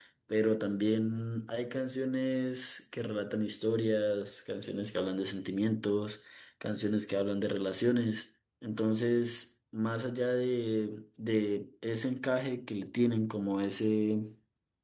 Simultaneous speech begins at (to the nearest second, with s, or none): none